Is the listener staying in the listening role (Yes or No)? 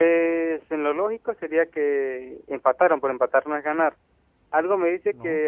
Yes